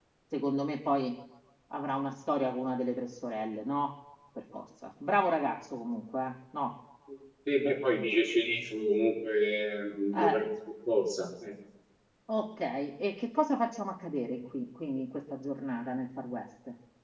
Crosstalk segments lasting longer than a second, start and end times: none

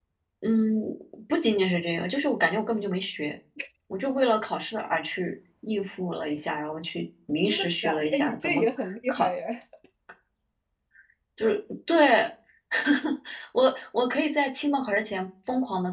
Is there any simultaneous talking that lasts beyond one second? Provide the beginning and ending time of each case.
7.4-8.7

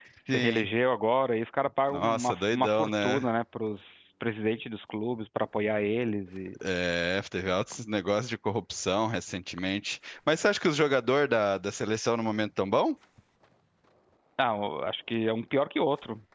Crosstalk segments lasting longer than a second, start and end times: 1.9-3.2

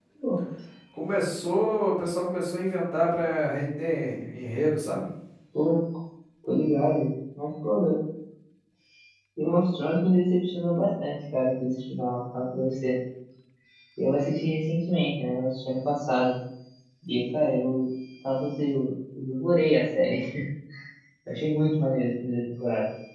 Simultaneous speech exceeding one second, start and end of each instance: none

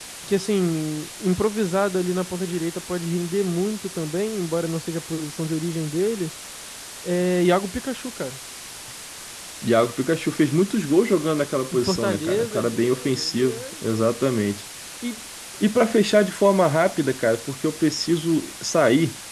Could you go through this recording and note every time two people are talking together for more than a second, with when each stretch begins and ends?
11.7-14.0

